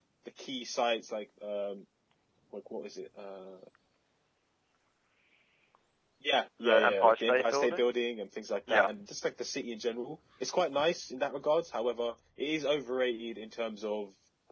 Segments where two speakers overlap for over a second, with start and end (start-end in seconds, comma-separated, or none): 6.6-7.8